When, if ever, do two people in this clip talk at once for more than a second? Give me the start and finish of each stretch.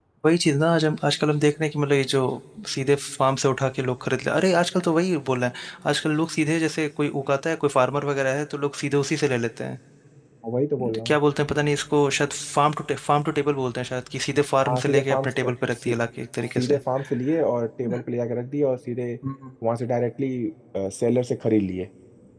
14.7-15.9

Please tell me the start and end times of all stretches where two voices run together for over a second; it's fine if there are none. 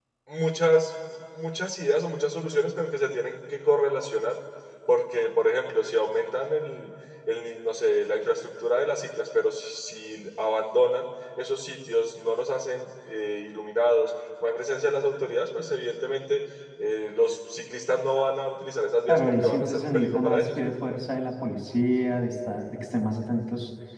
19.1-20.4

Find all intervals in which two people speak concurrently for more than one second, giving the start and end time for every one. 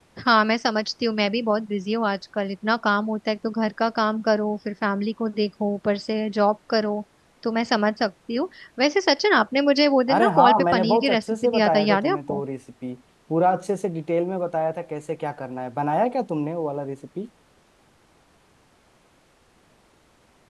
10.1-12.4

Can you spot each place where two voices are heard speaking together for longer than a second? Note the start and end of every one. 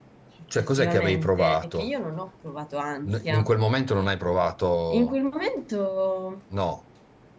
0.5-1.9

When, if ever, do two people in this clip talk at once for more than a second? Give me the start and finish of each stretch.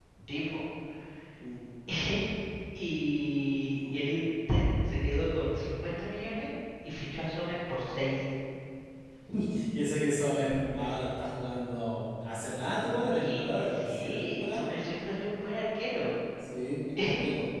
13.1-14.7

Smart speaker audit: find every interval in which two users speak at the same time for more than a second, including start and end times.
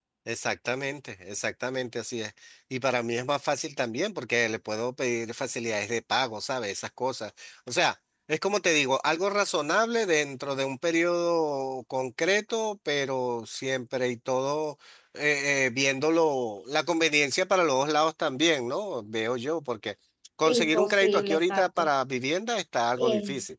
20.5-21.9

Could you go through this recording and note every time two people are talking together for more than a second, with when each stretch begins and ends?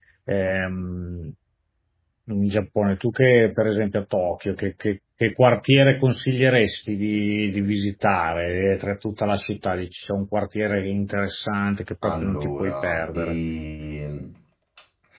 12.0-13.4

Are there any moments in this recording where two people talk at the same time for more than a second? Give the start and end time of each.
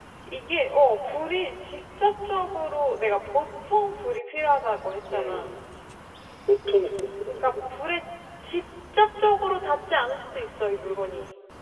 none

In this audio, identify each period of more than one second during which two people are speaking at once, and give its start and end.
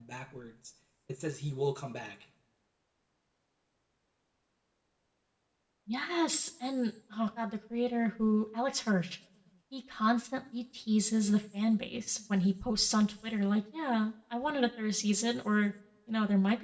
none

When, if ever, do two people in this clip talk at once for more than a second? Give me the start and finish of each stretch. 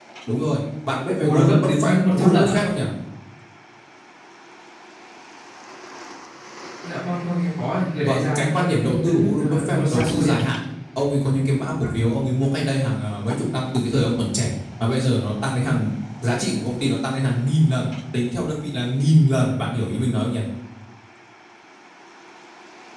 1.2-2.5, 8.0-10.4

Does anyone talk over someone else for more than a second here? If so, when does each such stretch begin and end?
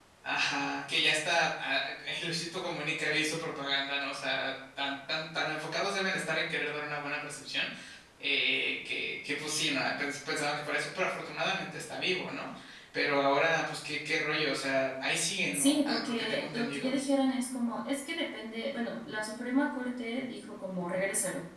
15.5-16.9

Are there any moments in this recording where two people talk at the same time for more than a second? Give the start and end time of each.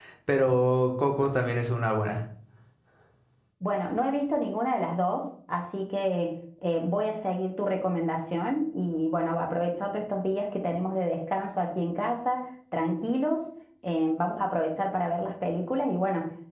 none

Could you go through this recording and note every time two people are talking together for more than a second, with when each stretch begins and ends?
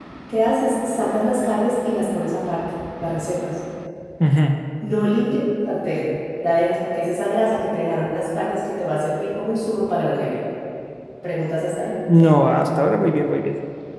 none

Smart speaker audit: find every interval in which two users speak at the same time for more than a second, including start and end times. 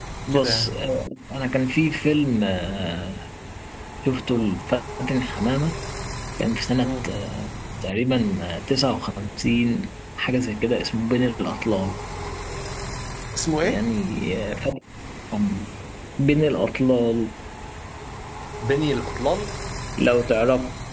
none

